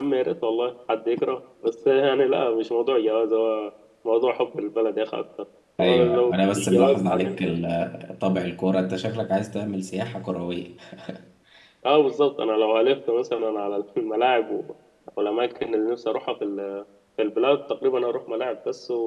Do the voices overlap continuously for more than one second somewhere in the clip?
Yes, from 5.8 s

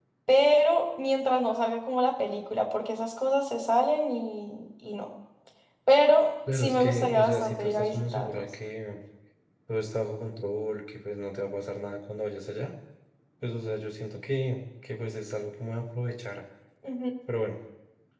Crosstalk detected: Yes, from 6.5 s

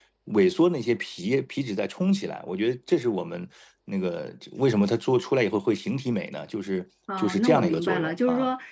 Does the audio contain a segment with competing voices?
Yes, from 7.1 s

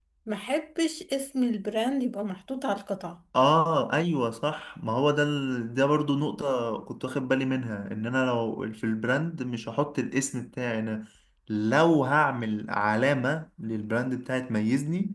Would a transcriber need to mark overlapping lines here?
No

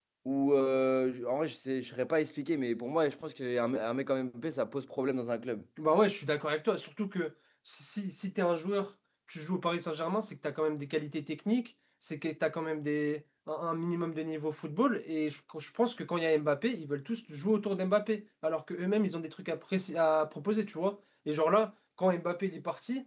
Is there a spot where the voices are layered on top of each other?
No

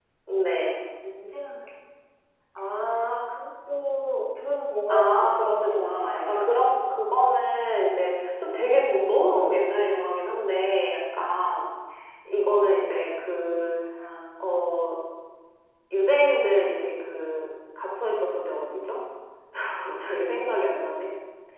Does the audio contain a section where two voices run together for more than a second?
Yes, from 4.9 s

